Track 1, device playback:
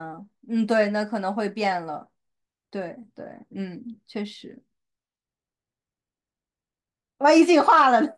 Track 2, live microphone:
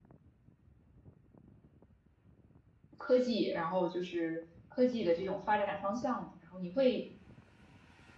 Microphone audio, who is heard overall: user only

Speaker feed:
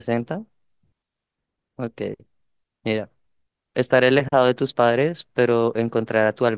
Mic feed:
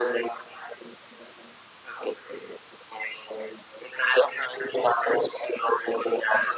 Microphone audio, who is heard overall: echo only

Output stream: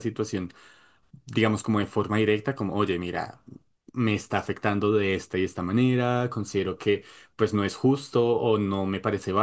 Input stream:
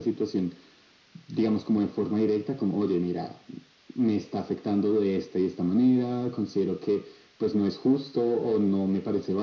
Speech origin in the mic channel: echo only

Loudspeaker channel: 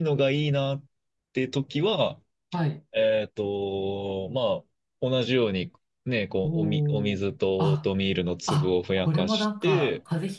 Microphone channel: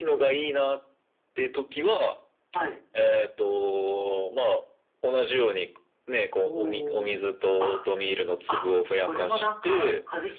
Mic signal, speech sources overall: echo only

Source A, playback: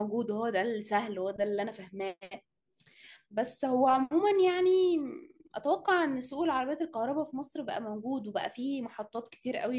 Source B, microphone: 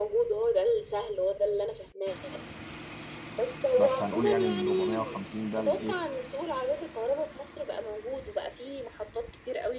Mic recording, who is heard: both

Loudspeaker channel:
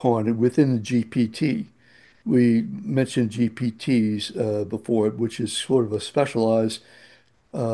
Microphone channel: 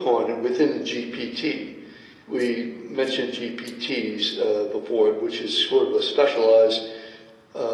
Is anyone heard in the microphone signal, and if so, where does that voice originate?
echo only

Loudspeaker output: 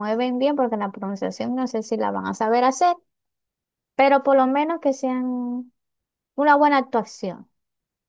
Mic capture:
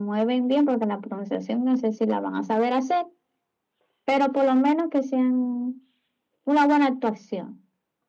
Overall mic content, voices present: echo only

